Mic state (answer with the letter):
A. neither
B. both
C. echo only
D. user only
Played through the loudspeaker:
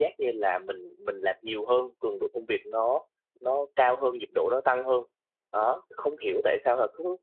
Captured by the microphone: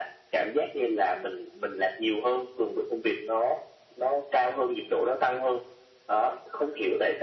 C